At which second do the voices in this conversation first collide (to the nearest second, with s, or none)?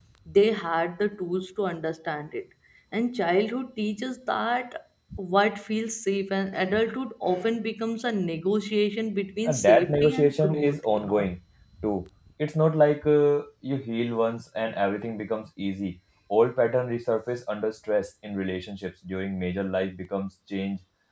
9 s